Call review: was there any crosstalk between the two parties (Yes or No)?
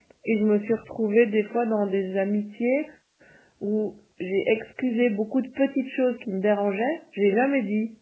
No